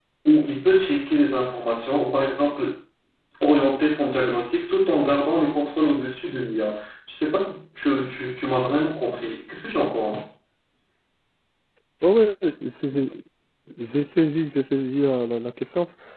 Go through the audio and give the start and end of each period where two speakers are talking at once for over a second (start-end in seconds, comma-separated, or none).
none